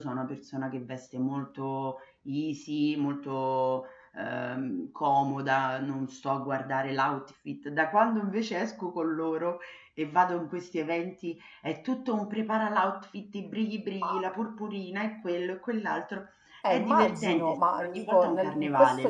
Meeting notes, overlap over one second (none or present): present